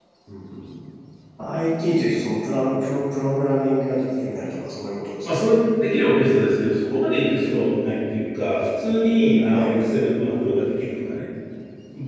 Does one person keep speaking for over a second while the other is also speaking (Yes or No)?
No